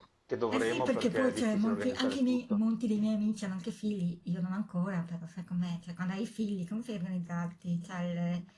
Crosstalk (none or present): present